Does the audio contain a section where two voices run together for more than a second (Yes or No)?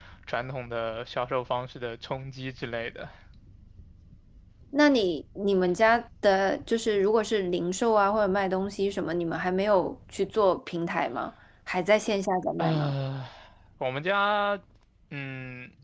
No